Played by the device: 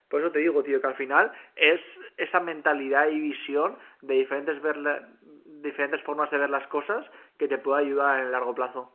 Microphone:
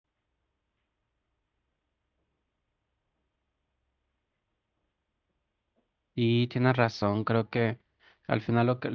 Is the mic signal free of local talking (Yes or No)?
No